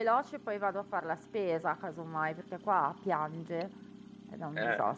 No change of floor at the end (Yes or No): No